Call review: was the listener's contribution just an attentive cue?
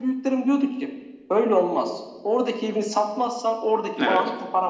Yes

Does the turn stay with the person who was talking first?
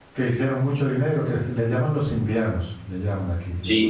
No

